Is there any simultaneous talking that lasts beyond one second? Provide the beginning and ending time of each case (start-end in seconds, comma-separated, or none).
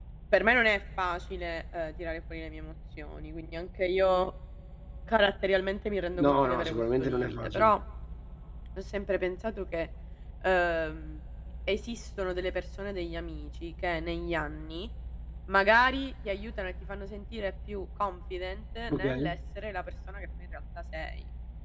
6.2-7.7